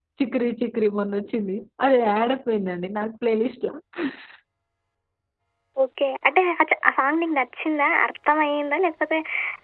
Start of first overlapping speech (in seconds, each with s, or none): none